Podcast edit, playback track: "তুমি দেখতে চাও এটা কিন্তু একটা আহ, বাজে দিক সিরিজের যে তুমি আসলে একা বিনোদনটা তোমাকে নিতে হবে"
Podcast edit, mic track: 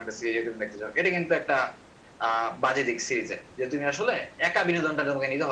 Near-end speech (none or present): none